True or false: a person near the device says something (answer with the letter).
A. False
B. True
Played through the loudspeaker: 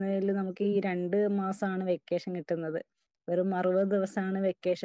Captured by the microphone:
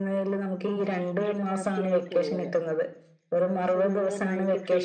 B